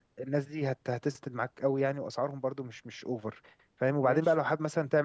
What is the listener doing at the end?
listening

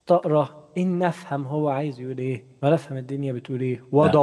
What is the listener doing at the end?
listening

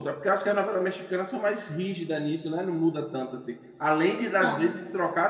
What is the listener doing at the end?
listening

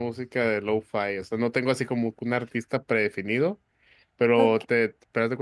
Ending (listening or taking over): listening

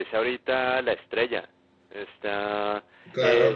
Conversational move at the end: taking over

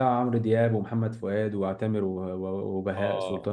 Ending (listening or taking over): taking over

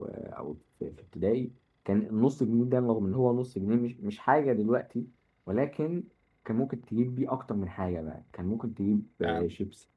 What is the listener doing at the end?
listening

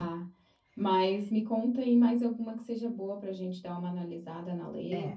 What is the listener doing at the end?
taking over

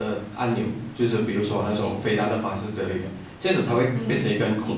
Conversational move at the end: listening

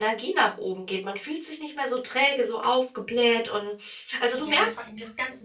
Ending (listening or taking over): taking over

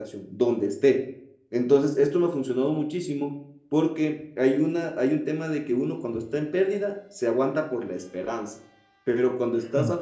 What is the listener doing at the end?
listening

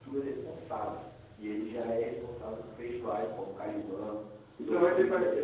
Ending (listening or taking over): taking over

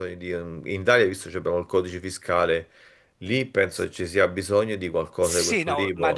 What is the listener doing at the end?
taking over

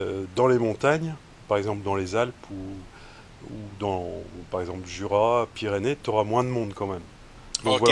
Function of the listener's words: taking over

